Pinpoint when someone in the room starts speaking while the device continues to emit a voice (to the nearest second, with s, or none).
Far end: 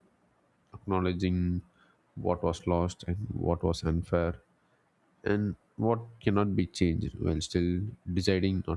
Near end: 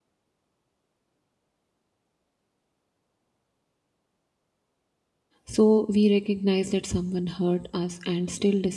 5 s